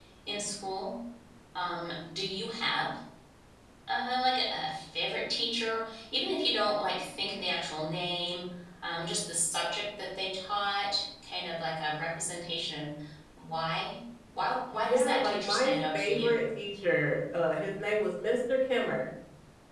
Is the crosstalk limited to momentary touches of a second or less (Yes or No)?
No